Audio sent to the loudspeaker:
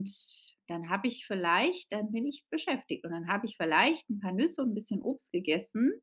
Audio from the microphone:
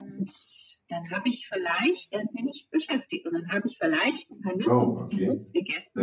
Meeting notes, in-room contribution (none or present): present